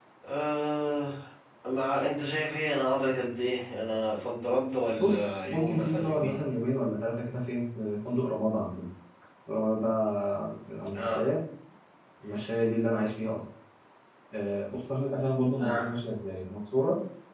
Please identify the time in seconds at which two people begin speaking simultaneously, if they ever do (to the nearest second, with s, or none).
5 s